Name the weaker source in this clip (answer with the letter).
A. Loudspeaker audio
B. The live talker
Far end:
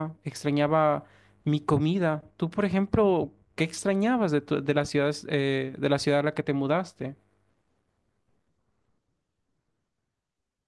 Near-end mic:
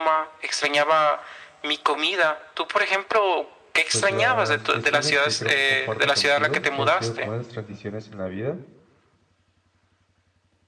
B